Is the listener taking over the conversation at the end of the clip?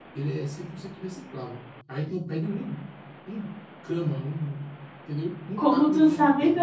Yes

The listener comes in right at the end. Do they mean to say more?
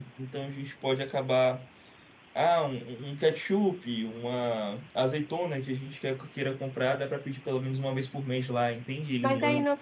Yes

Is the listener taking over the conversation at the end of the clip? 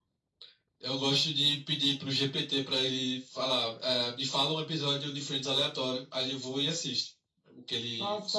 Yes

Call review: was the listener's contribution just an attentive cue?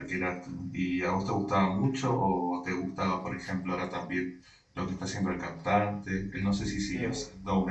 Yes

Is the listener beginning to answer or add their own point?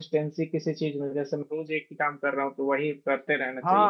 Yes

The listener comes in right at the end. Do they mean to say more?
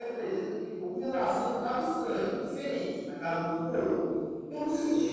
No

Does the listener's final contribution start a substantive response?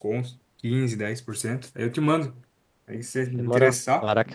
Yes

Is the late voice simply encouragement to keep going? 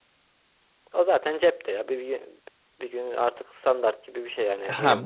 No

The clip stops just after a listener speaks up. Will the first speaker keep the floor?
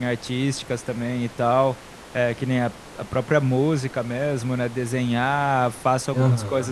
Yes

